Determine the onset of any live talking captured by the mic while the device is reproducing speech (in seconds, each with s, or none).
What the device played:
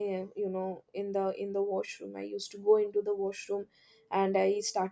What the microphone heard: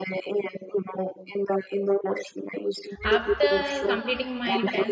3.0 s